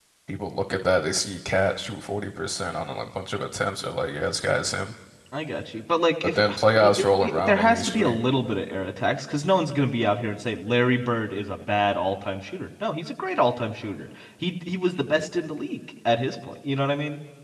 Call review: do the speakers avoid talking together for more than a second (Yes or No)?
No